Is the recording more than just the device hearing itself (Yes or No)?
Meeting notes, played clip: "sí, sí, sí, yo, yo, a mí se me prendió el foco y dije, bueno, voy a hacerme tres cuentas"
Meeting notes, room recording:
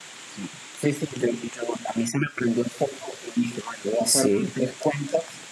Yes